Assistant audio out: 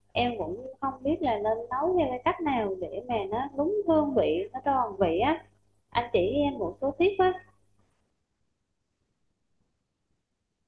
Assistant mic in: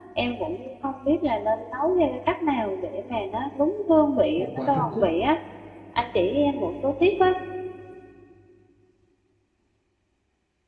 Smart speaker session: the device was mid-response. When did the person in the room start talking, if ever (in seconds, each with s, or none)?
4.4 s